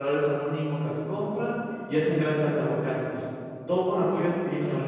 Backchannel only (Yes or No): No